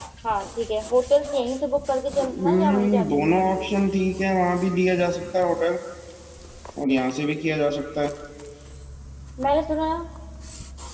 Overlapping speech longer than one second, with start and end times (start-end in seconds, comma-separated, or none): 2.2-3.7